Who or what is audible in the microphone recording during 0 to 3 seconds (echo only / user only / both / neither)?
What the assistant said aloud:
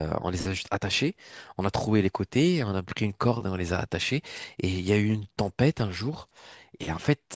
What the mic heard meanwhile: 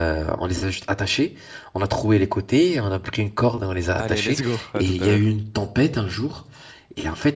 echo only